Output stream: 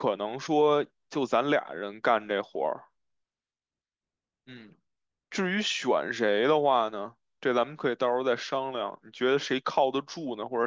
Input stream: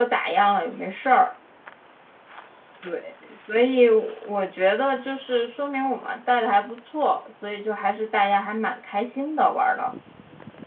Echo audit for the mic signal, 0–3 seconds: user only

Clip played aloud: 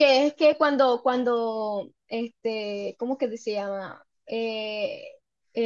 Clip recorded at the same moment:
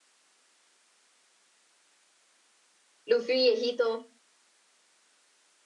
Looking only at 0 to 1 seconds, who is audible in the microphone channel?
neither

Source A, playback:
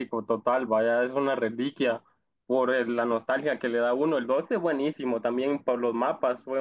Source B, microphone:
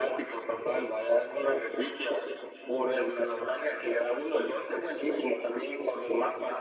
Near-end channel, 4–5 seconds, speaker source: echo only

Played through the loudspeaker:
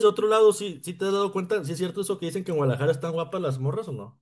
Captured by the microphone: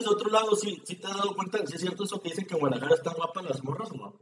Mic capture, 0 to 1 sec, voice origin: echo only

